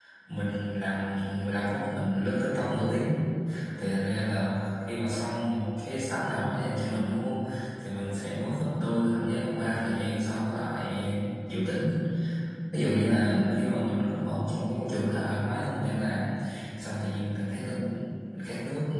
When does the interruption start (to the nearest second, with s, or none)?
none